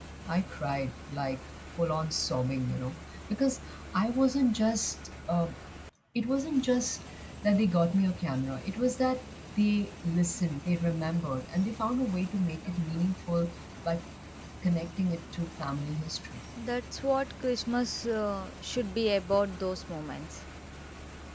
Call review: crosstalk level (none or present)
none